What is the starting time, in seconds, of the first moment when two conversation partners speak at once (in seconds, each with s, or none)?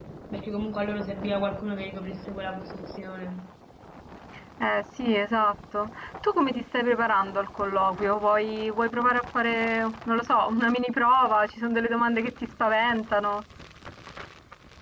none